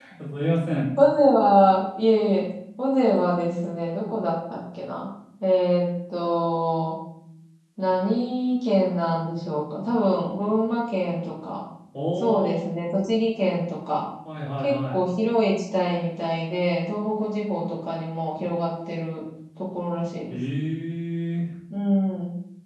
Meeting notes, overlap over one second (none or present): none